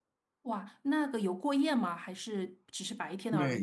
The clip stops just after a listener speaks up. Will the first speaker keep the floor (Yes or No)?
No